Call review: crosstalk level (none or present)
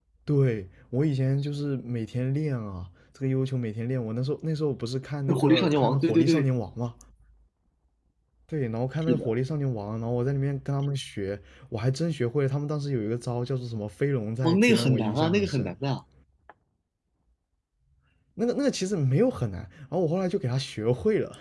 present